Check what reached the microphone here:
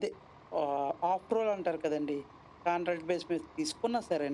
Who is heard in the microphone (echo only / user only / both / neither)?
echo only